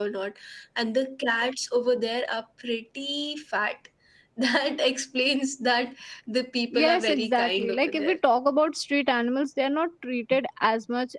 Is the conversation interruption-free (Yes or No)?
No